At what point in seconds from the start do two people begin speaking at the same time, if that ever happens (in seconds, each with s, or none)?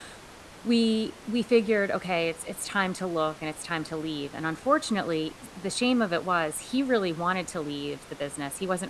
none